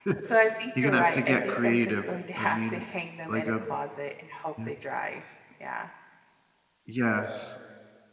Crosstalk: present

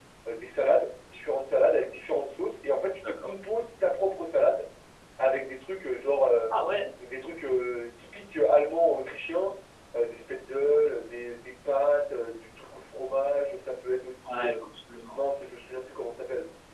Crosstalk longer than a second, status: none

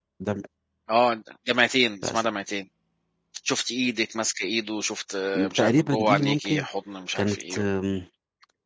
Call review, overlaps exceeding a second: present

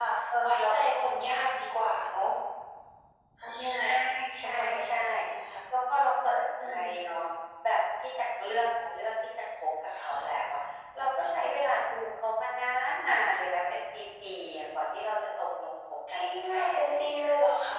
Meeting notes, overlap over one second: present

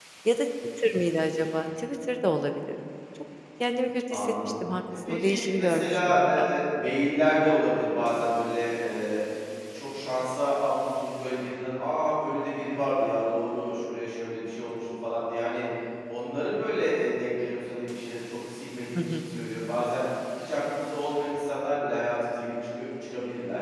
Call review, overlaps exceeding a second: present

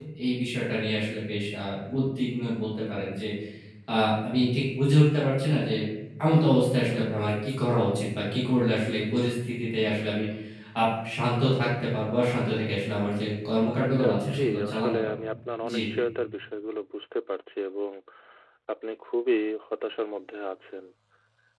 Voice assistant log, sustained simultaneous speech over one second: present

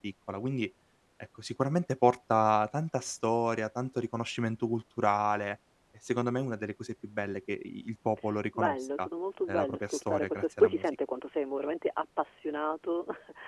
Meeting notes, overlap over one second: present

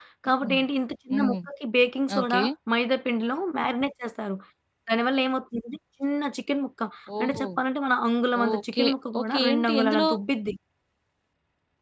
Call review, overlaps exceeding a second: present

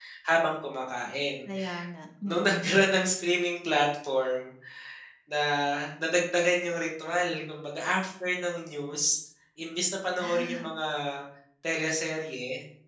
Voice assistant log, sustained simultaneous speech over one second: none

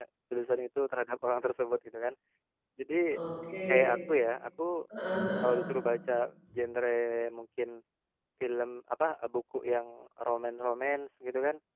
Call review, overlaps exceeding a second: none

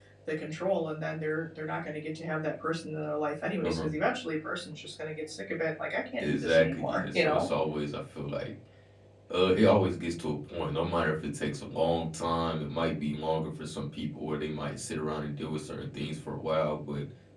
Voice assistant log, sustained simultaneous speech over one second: present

